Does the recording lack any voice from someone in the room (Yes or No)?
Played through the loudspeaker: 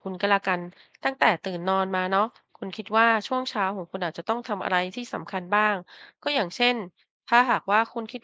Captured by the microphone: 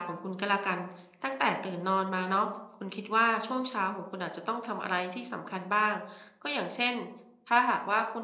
Yes